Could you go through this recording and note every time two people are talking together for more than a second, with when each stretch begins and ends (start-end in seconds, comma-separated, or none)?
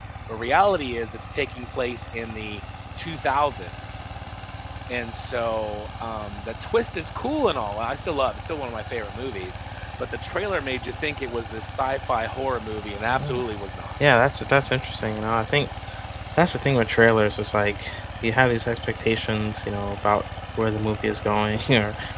none